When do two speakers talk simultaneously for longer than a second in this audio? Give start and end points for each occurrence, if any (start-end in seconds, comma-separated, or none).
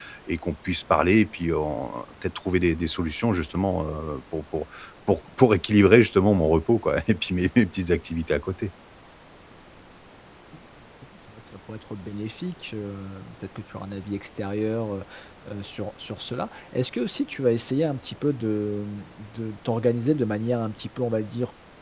none